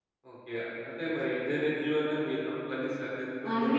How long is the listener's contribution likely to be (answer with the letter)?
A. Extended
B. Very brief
A